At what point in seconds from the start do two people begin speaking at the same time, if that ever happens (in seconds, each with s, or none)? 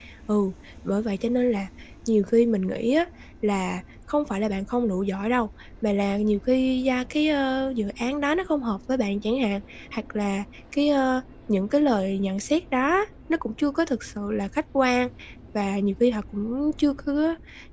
none